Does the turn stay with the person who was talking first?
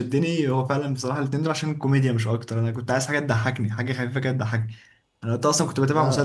Yes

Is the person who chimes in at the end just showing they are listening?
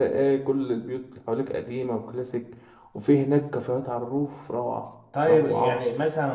No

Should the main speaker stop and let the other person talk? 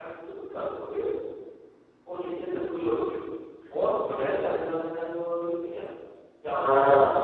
No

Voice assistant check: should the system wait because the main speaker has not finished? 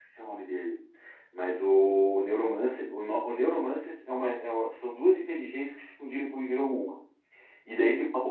Yes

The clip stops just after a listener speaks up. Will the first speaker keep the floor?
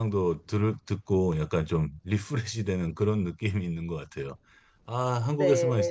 Yes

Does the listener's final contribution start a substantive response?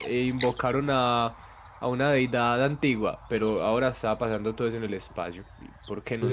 Yes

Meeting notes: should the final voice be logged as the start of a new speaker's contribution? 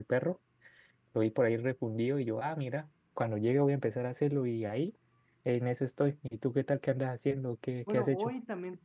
Yes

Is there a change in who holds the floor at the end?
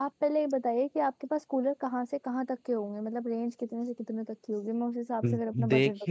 Yes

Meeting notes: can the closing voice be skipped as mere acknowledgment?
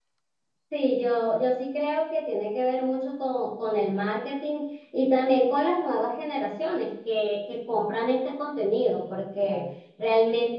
Yes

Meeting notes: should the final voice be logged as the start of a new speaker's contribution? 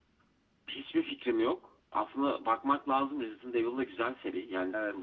No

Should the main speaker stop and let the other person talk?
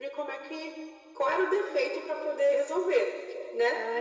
No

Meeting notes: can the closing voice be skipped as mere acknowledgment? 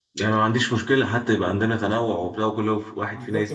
No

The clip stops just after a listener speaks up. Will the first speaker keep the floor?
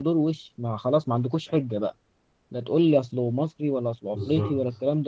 Yes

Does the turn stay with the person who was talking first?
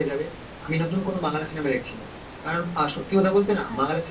Yes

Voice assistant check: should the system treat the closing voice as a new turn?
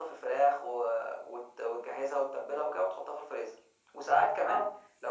No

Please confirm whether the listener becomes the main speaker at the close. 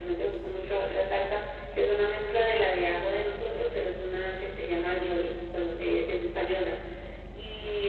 No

